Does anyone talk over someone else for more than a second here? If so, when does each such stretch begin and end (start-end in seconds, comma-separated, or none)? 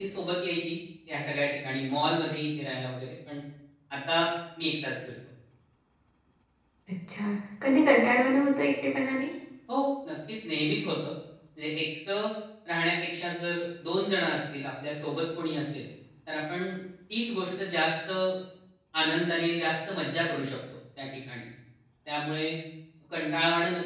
none